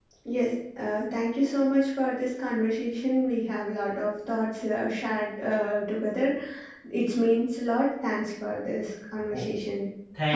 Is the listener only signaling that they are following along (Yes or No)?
No